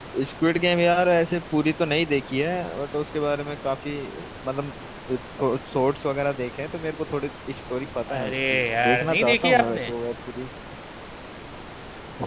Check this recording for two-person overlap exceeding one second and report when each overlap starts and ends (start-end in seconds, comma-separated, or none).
8.2-9.8